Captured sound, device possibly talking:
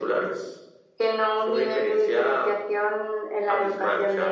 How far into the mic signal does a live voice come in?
none

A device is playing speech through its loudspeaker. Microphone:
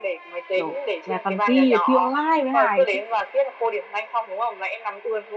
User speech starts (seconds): 0.6 s

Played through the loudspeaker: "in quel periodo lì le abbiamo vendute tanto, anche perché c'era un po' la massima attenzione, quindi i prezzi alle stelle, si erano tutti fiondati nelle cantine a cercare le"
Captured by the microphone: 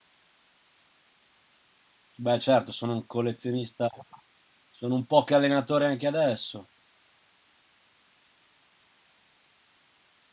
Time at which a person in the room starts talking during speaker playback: 2.2 s

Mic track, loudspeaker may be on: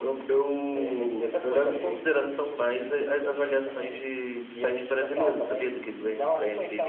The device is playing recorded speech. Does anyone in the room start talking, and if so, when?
none

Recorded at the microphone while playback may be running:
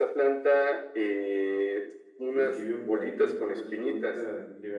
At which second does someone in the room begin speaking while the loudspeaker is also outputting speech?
2.3 s

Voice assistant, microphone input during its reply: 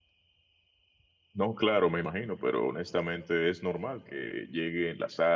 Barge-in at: 1.3 s

